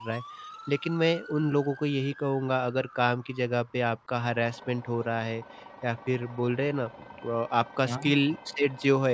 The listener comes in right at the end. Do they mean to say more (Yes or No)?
No